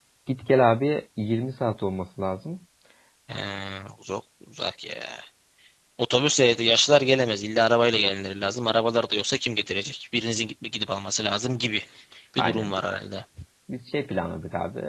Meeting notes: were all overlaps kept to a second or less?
Yes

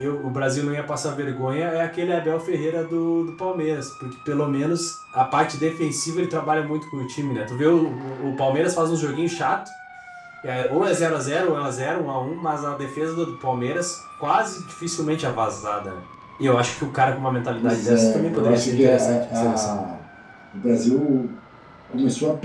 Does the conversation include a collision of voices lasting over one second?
Yes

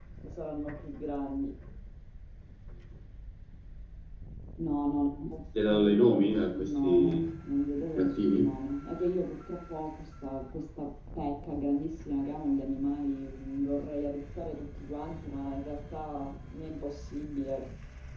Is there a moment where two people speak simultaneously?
Yes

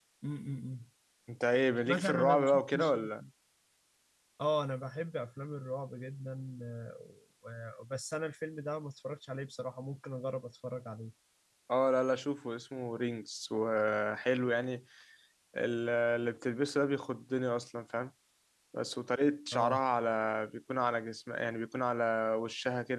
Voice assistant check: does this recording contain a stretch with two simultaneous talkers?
Yes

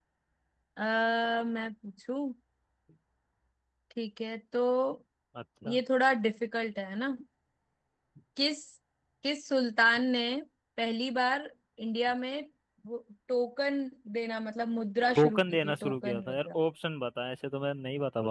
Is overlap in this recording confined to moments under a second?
No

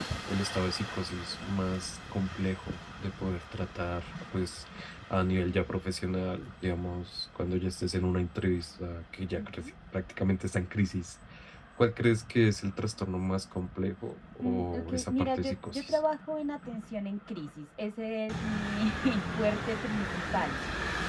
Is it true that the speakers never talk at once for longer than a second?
No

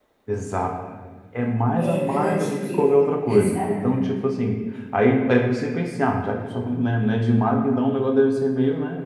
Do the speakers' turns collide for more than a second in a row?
Yes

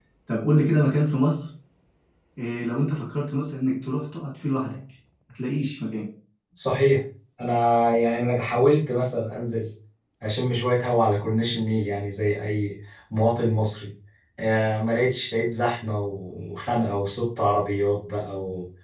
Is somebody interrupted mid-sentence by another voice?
No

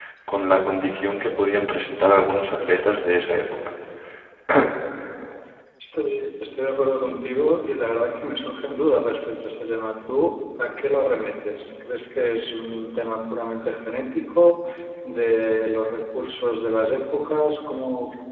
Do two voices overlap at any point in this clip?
No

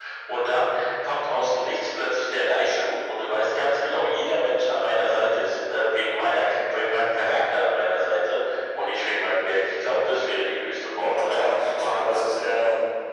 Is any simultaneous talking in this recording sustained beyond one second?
Yes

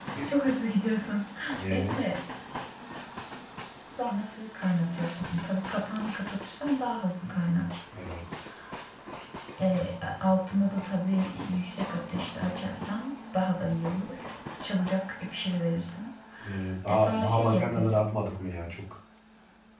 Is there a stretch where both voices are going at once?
Yes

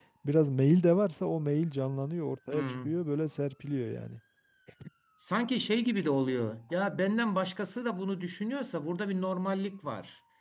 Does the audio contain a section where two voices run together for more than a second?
No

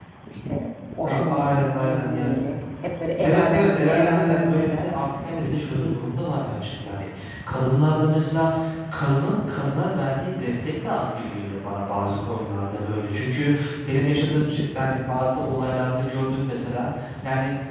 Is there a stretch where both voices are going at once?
Yes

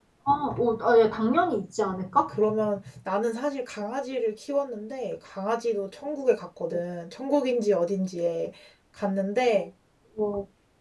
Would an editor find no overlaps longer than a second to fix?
Yes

